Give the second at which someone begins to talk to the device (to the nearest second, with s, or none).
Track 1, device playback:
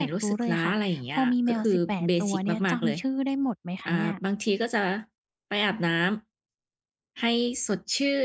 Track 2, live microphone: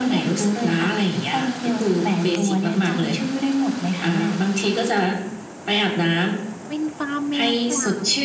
7 s